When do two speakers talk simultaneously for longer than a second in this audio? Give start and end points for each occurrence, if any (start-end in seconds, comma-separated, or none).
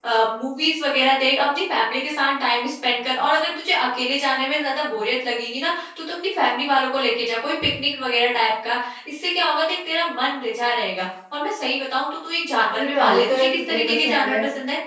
12.7-14.4